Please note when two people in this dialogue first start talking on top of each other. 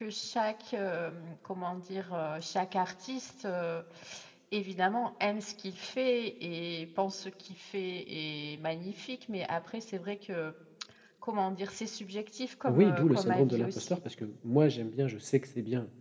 13 s

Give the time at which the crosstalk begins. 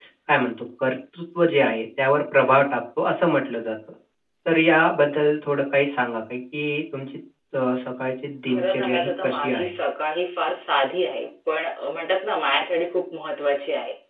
8 s

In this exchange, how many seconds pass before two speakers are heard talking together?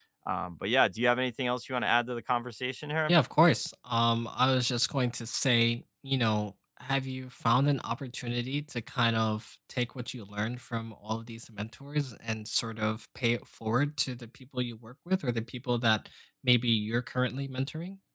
none

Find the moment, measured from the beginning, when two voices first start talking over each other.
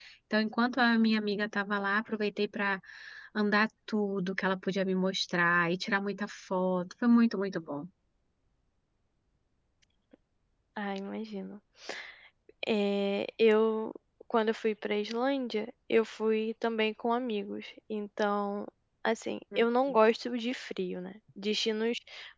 none

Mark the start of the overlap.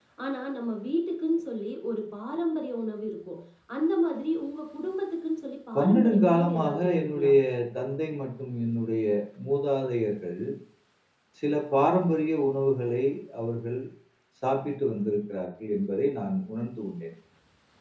6 s

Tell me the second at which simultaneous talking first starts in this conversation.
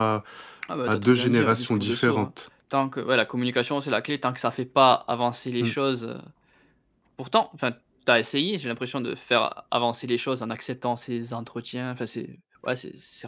1 s

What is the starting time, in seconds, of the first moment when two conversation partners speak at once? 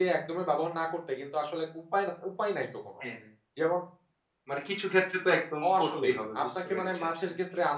6 s

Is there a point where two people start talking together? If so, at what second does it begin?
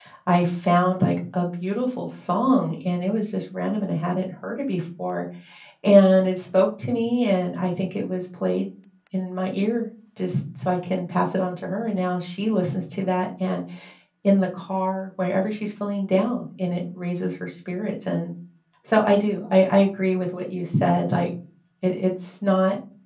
none

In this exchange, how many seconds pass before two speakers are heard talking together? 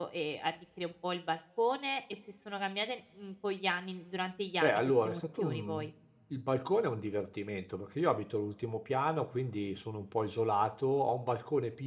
5 s

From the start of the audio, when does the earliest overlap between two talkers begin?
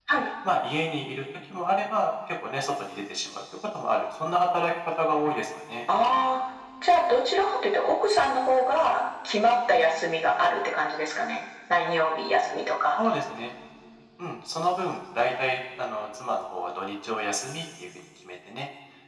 none

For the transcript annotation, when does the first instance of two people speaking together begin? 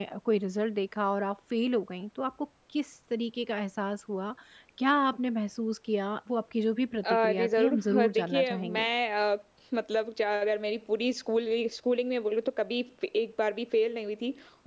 7 s

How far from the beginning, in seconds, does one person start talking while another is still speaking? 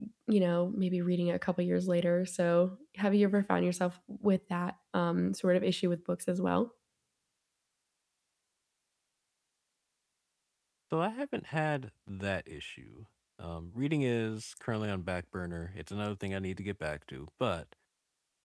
none

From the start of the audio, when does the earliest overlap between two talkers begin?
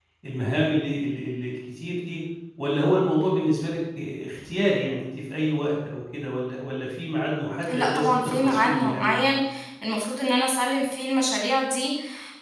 8 s

